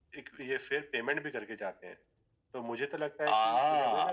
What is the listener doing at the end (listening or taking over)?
listening